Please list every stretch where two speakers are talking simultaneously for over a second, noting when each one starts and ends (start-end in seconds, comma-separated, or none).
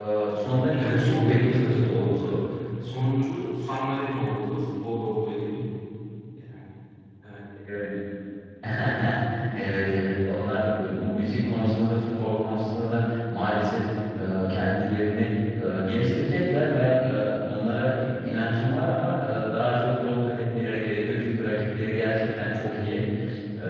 0.7-2.3